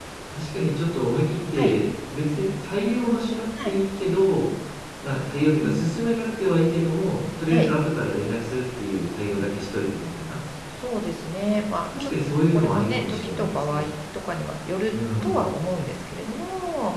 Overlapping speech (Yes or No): Yes